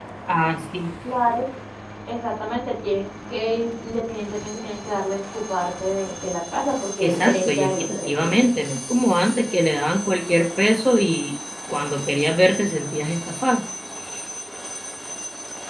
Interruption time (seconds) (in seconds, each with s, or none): 7.0 s